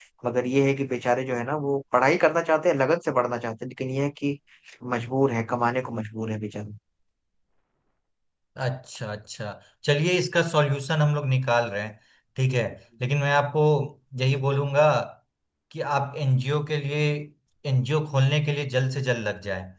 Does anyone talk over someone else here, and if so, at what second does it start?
none

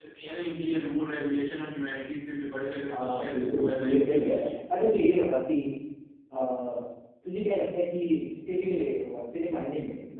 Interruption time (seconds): 2.9 s

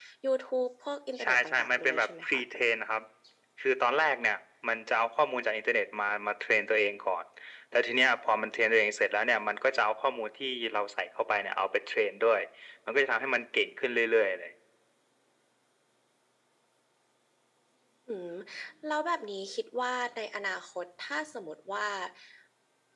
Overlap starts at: 1.2 s

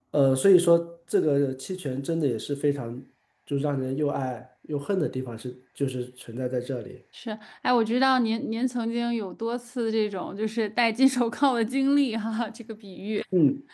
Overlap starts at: none

